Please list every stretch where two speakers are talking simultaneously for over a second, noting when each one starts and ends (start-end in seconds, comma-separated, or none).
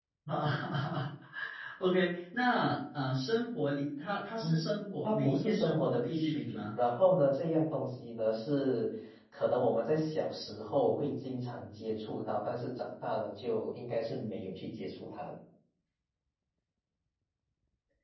5.0-6.6